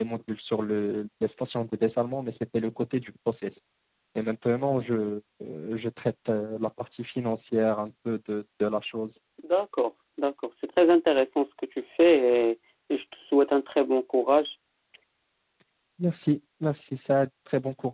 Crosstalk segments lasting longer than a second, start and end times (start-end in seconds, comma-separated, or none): none